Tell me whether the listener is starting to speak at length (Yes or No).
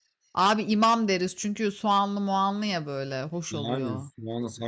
Yes